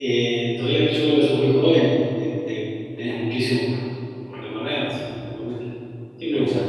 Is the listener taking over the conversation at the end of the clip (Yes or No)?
Yes